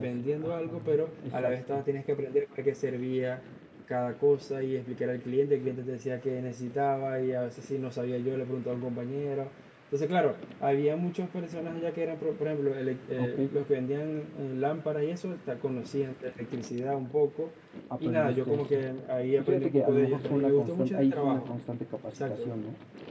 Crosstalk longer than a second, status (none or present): present